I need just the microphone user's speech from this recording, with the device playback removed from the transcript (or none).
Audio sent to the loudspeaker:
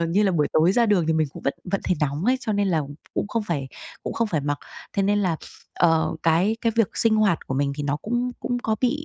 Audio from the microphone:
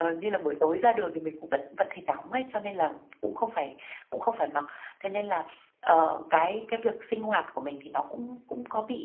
none